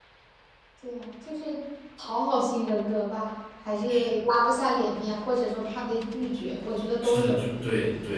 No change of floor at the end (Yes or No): No